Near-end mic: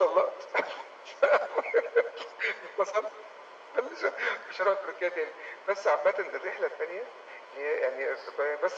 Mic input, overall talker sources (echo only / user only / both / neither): echo only